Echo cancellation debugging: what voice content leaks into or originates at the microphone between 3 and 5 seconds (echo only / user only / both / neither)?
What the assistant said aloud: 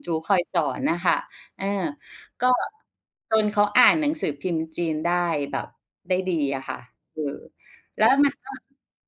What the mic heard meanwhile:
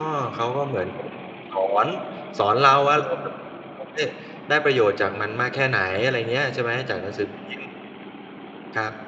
user only